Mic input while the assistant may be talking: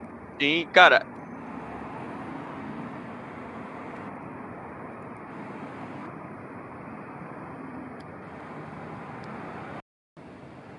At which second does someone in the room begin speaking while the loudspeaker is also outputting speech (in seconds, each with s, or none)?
0.4 s